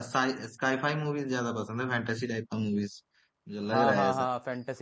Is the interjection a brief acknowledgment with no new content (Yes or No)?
No